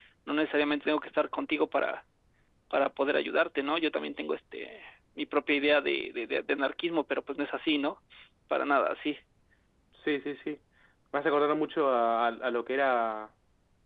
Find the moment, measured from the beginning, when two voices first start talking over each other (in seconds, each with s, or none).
none